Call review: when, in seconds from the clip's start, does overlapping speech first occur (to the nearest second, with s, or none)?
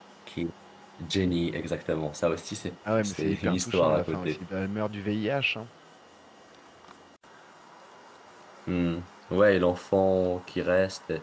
3 s